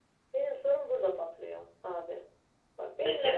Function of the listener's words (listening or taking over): listening